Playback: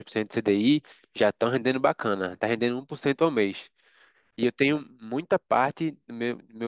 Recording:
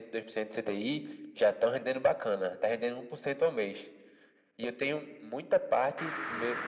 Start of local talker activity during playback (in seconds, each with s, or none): none